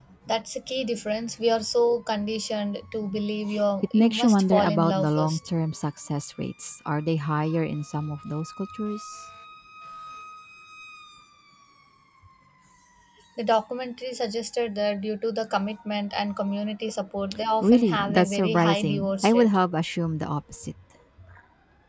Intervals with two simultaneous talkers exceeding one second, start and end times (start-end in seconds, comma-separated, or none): 3.9-5.4, 17.6-19.5